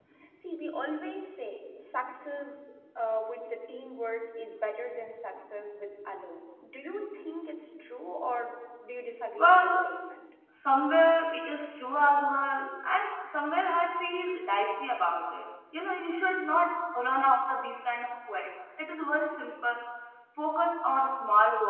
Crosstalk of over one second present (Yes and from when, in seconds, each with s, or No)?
No